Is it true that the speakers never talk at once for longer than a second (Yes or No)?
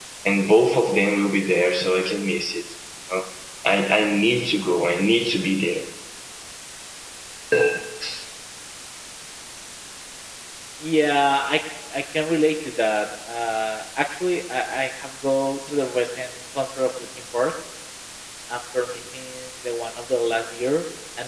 Yes